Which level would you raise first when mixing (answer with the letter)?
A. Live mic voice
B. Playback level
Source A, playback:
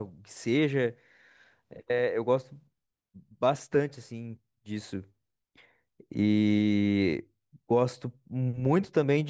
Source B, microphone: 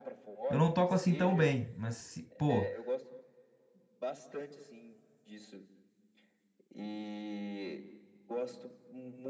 B